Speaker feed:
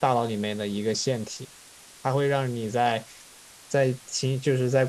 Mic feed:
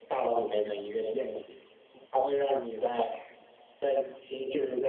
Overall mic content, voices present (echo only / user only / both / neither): echo only